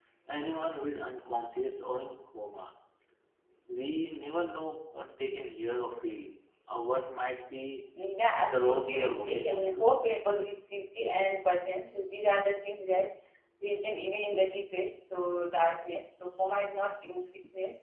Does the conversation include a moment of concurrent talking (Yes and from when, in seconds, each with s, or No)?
Yes, from 8.4 s